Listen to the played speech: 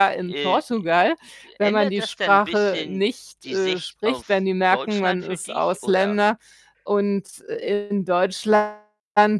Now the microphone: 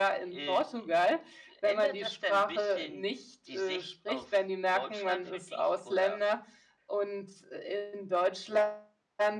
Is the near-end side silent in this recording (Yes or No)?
Yes